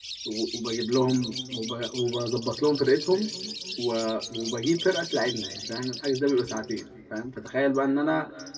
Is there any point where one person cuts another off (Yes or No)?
No